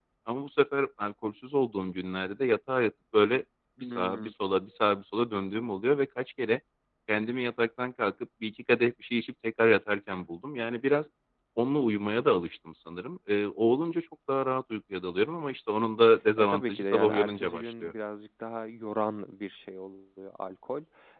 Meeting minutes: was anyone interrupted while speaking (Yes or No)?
Yes